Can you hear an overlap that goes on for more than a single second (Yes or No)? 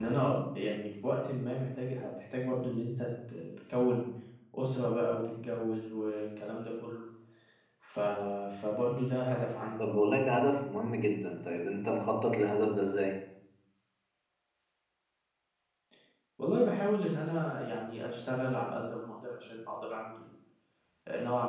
No